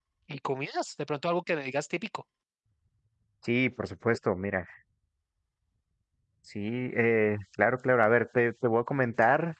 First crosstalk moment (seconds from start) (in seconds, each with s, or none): none